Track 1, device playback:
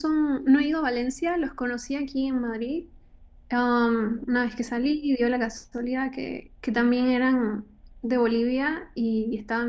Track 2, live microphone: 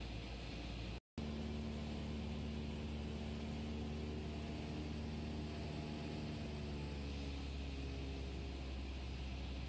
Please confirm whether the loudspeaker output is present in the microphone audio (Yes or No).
No